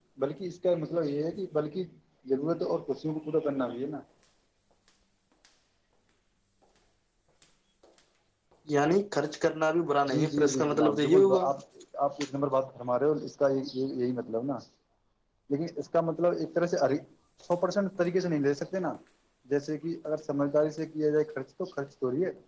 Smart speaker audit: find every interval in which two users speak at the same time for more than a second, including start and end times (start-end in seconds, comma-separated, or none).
10.1-11.4